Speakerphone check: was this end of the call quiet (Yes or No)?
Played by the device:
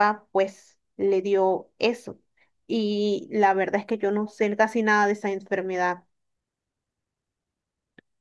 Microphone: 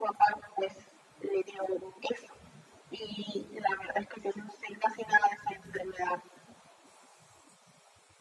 Yes